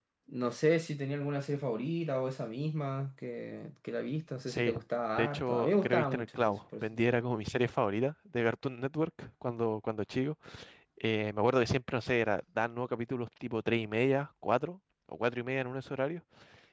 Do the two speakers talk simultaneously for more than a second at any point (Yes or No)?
Yes